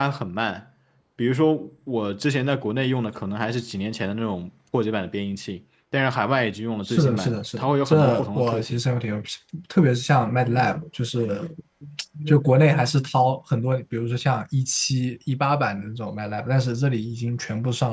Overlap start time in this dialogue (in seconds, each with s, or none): 6.8 s